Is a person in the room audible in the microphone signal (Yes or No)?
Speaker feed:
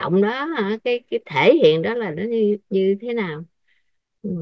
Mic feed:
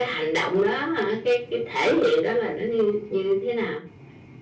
No